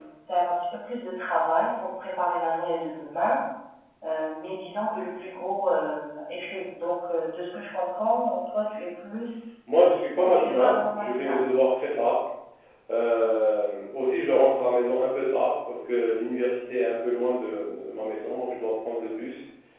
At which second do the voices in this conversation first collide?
10.2 s

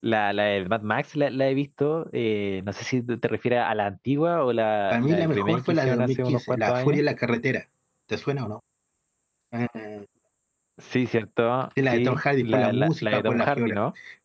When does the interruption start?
4.9 s

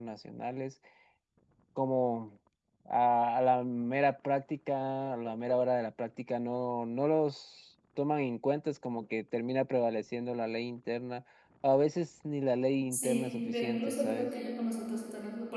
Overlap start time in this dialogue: 12.9 s

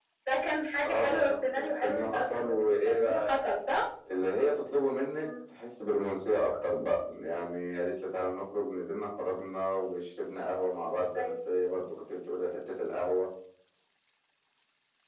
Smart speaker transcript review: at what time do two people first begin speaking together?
0.8 s

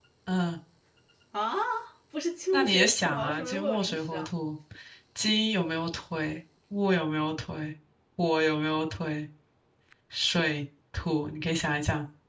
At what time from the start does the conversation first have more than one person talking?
2.5 s

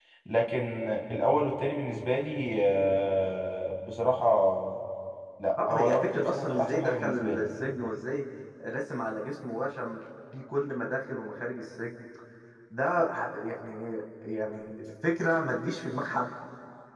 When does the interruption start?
5.7 s

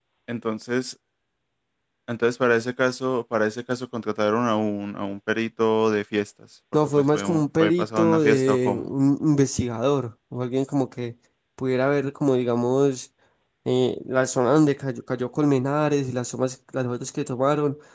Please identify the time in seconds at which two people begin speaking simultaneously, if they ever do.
6.7 s

